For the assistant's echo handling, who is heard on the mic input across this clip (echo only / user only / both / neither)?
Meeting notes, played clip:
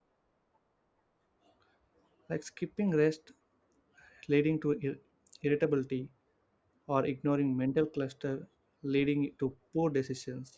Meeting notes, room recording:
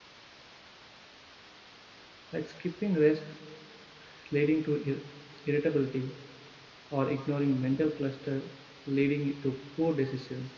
echo only